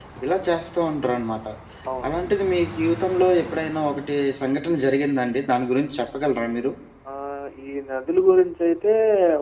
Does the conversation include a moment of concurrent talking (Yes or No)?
No